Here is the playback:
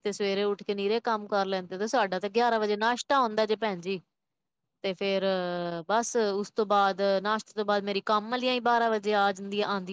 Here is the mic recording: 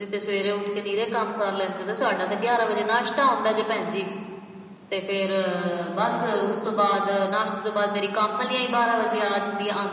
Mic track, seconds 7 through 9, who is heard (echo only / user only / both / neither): echo only